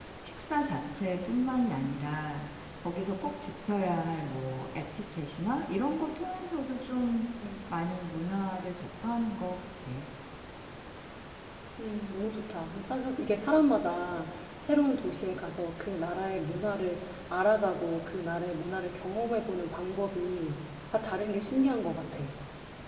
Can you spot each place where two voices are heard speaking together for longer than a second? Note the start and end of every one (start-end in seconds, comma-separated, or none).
none